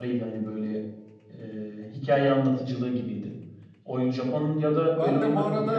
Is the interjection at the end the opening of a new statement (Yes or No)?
Yes